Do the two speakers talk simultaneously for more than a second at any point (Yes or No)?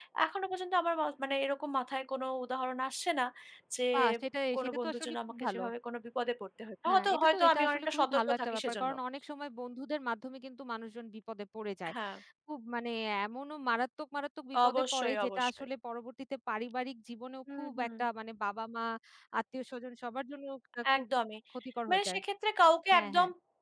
Yes